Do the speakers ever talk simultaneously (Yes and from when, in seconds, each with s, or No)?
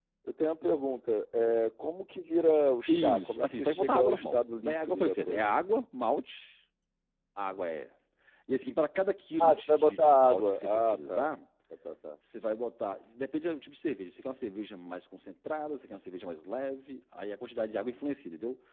Yes, from 2.9 s